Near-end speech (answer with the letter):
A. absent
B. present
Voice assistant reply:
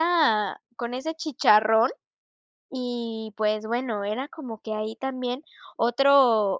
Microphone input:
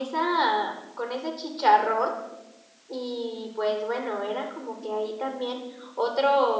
A